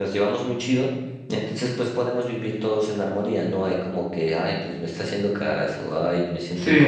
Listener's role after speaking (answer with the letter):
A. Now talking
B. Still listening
A